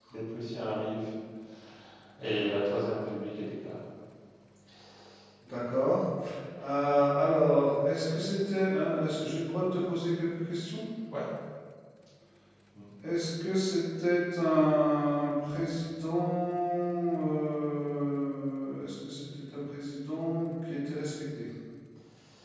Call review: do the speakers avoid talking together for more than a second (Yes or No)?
Yes